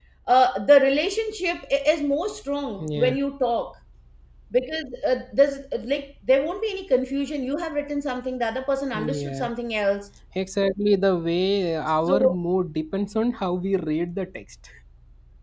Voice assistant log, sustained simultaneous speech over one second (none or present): none